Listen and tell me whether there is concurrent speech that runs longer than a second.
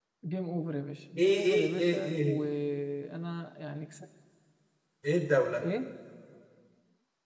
Yes, from 1.2 s

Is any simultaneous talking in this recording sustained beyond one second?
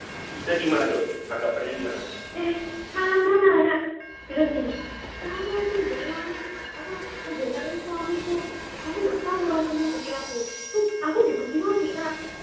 No

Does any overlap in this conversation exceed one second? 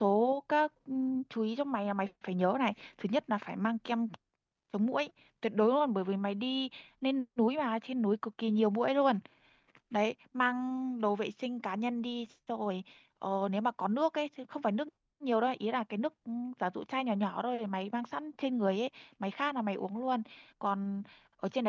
No

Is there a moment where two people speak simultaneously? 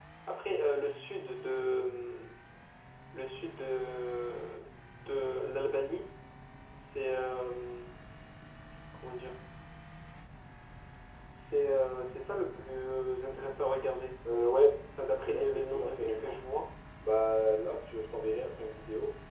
Yes, from 15.2 s

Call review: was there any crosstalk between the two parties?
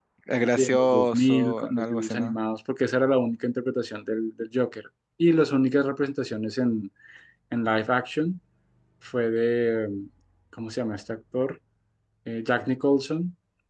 Yes, from 0.6 s

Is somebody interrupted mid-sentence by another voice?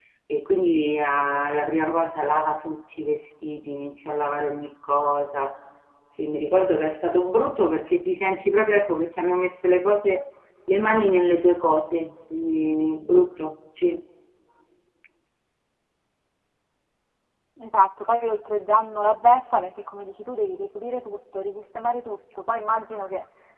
No

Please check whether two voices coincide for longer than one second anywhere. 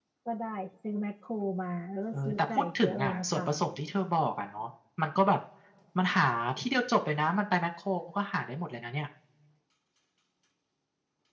Yes, from 2.1 s

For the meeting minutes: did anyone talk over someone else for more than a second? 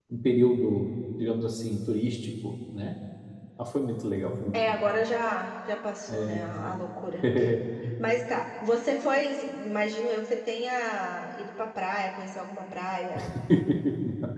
No

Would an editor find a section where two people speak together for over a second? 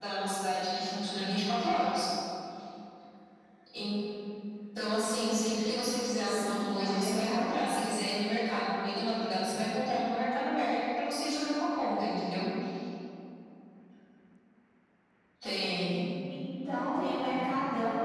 Yes, from 6.2 s

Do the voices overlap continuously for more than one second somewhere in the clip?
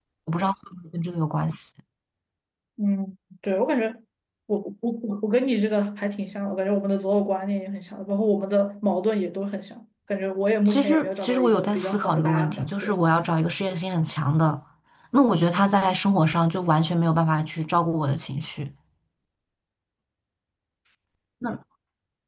Yes, from 10.6 s

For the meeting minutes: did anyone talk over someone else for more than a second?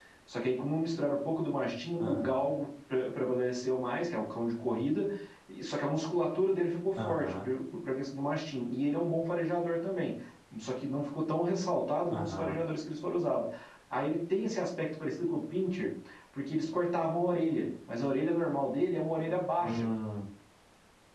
No

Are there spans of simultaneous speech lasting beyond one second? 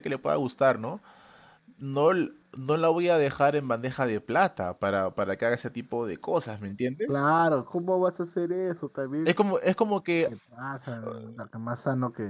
No

